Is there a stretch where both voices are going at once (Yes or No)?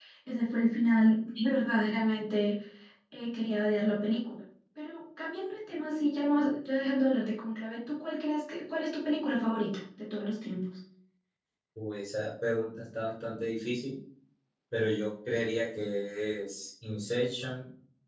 No